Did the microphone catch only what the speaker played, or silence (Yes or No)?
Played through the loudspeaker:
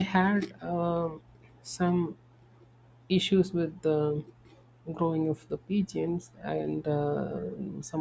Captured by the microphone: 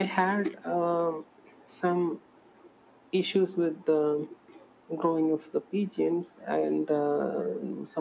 Yes